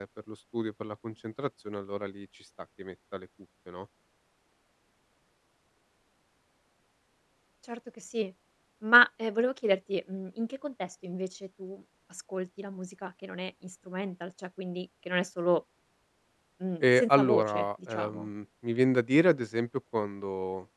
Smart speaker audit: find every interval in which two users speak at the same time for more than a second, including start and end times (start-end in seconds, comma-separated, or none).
16.8-18.3